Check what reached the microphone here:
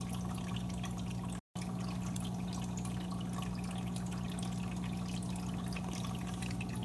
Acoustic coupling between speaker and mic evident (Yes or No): No